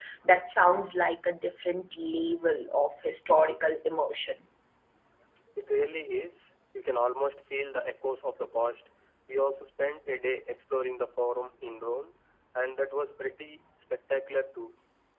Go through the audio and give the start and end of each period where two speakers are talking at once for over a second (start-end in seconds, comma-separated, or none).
none